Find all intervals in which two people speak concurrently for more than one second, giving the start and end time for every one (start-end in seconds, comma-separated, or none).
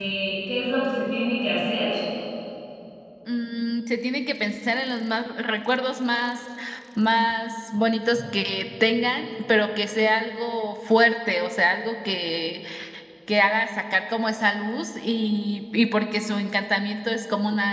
none